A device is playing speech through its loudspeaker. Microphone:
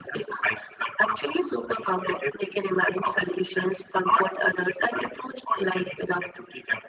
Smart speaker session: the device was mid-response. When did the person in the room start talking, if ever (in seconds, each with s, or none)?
none